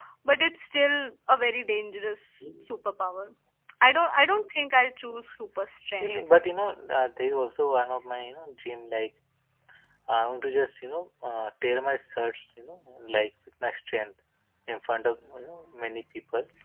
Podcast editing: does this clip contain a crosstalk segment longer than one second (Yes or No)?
No